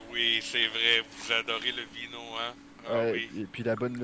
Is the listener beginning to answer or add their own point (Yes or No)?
Yes